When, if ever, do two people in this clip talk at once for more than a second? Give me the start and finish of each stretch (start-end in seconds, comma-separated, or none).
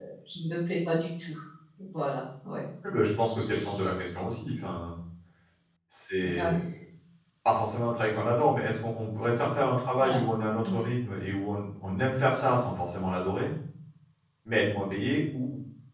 none